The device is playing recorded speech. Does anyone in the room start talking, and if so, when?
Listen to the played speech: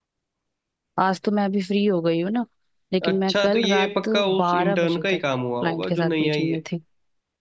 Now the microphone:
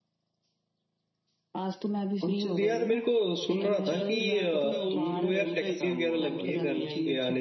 2.2 s

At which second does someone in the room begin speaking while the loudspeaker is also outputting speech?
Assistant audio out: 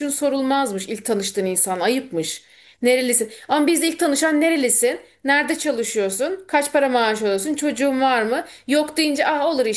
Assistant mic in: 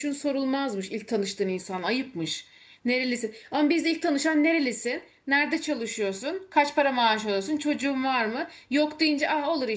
none

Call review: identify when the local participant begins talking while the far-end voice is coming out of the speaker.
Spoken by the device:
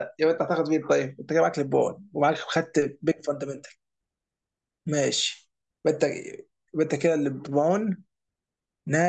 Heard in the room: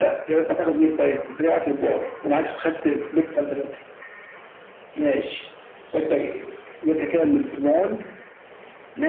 none

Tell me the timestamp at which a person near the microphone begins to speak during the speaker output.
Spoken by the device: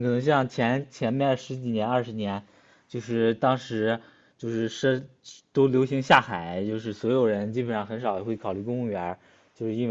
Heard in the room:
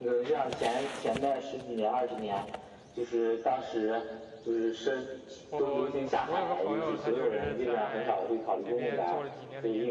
5.5 s

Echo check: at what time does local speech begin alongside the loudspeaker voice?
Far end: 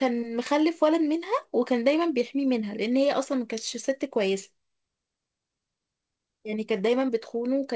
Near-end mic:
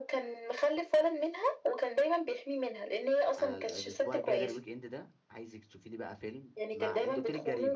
3.4 s

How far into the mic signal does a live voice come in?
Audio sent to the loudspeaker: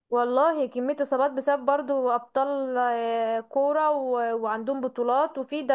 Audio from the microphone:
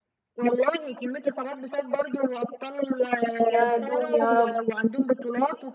3.5 s

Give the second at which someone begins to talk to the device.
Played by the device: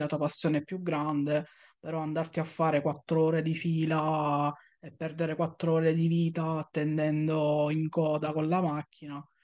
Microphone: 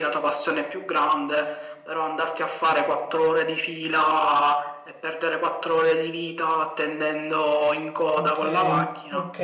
8.2 s

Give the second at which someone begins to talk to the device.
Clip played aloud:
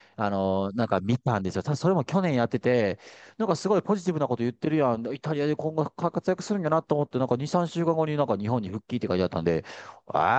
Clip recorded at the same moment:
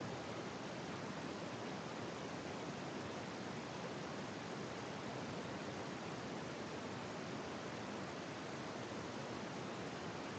none

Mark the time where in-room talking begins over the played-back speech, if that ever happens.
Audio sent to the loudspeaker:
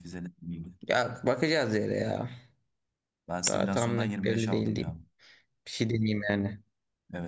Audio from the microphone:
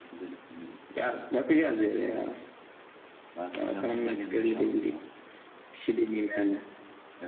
none

